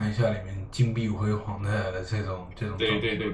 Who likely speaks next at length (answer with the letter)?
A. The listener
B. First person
A